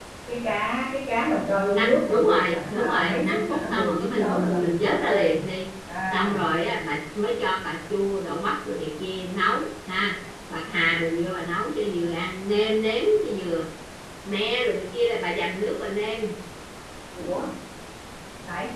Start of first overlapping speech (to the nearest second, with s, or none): 2 s